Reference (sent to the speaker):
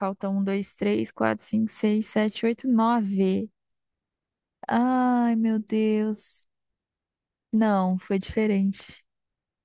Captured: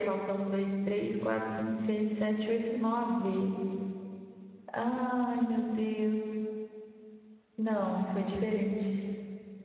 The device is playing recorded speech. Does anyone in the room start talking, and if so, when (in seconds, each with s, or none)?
none